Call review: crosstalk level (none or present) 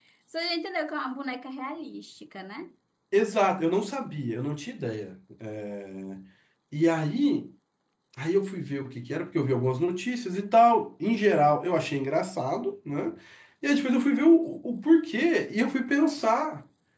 none